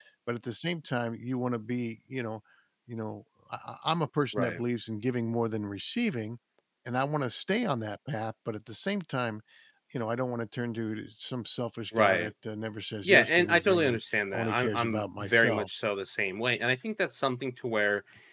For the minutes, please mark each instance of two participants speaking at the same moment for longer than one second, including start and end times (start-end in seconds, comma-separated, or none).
13.0-15.7